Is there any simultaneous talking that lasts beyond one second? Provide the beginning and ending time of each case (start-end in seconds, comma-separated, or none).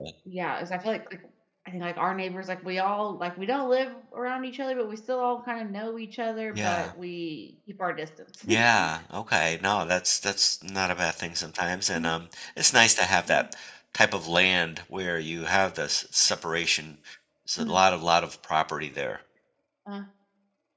none